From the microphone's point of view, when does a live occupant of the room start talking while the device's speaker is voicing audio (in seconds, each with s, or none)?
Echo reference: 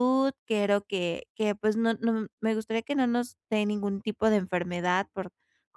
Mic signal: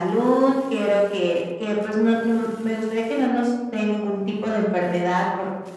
none